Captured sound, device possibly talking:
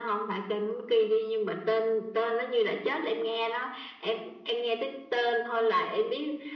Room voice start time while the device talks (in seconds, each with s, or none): none